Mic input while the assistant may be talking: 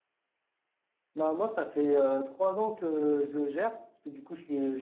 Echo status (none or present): none